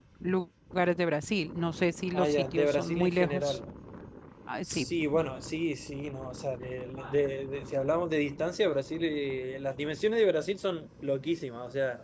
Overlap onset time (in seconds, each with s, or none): 2.1 s